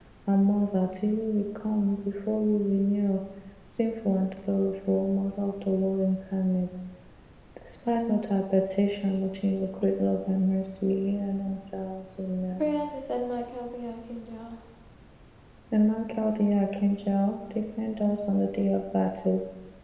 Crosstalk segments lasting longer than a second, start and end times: none

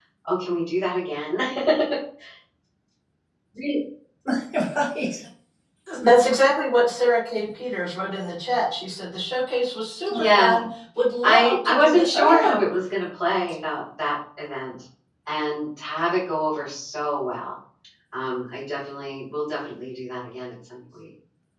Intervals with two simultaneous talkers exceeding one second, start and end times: 11.2-12.6

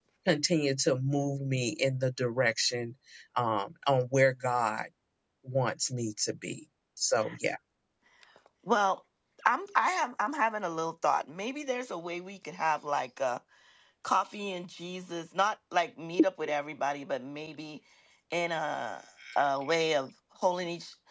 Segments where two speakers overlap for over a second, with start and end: none

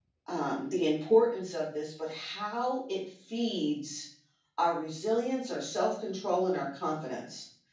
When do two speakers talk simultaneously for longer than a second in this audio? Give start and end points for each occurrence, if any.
none

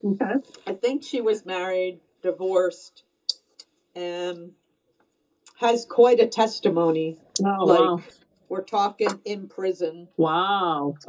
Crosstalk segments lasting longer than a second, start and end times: none

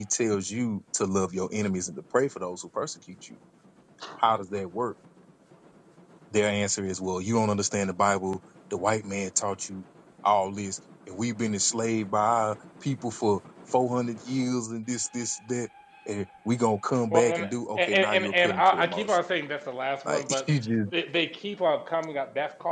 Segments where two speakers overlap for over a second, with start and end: 17.1-19.2

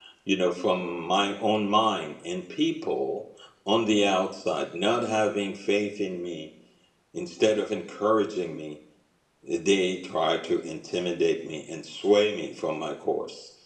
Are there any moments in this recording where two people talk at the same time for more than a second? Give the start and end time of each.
none

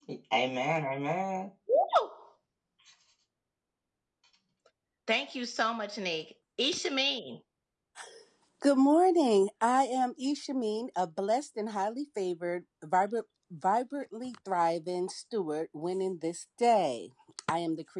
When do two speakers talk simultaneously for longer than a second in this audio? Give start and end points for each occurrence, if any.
none

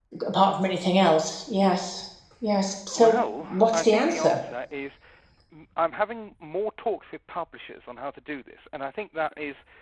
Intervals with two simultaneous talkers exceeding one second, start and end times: 2.9-4.4

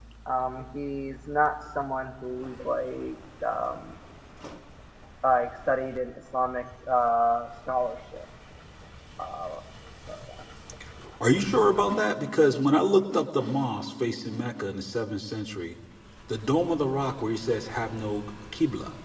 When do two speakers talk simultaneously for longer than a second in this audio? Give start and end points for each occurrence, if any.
none

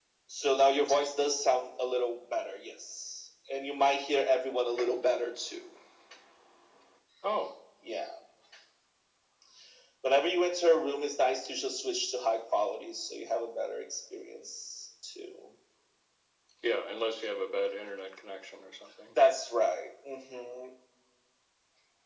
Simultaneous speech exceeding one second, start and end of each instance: none

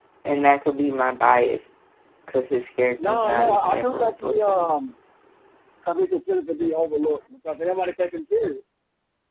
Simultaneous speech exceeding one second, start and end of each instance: 3.1-4.7

